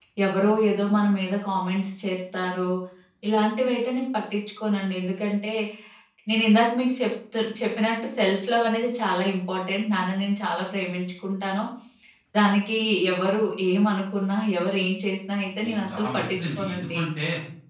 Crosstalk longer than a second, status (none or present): present